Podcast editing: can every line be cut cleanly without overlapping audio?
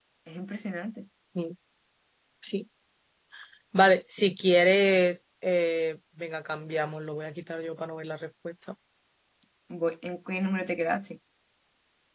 Yes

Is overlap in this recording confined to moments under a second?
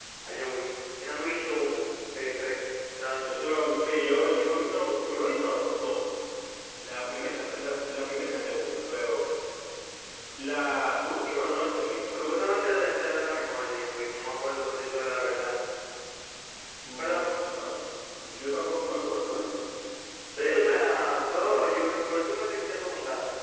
No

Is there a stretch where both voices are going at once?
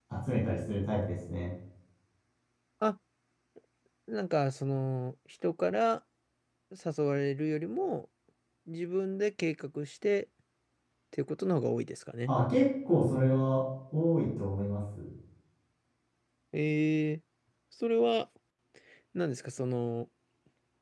No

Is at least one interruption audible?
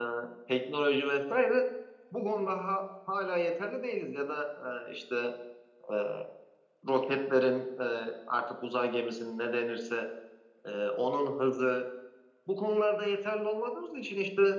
No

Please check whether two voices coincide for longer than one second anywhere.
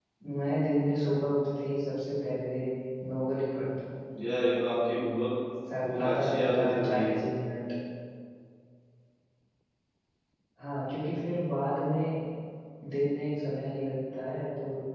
Yes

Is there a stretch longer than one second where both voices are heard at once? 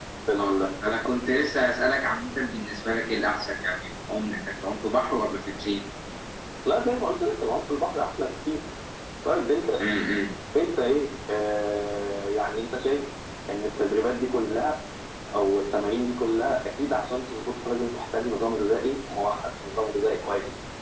No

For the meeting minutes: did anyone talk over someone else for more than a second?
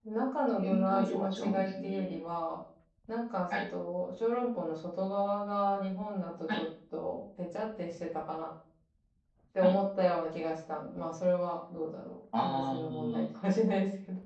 Yes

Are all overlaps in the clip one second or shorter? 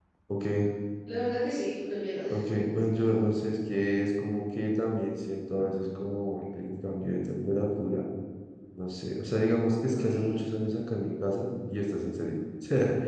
Yes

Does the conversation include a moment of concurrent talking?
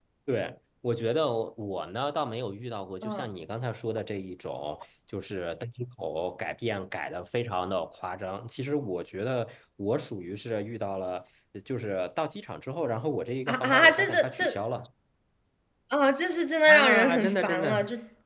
Yes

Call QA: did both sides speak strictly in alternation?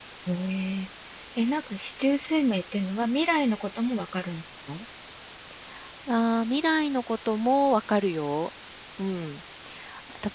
Yes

